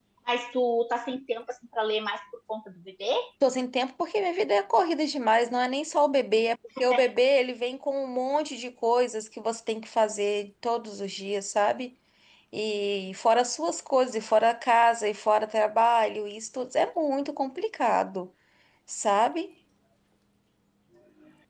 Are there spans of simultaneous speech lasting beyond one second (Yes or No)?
No